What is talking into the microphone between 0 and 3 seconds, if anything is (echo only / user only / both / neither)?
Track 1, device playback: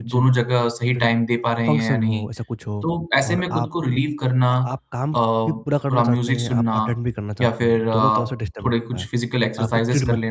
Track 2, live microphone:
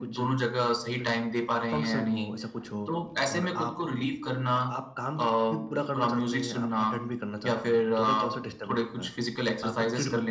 echo only